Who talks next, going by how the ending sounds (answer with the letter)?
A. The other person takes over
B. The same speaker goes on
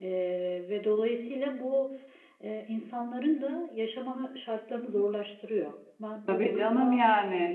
A